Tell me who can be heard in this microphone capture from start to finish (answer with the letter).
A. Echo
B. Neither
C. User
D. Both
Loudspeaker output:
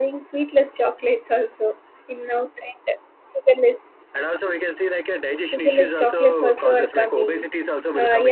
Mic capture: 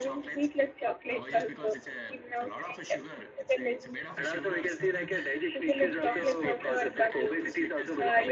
D